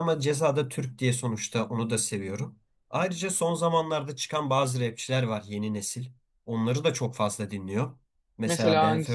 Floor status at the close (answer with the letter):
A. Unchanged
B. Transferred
A